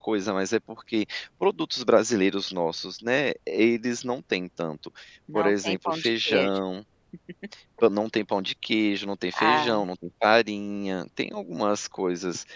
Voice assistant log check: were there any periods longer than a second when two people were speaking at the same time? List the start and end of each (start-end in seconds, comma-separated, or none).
5.3-6.6